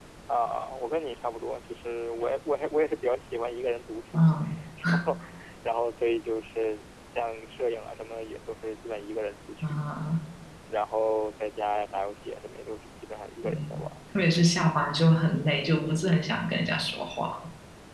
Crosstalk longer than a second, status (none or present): none